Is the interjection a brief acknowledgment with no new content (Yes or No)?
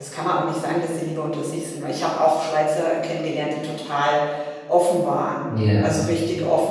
Yes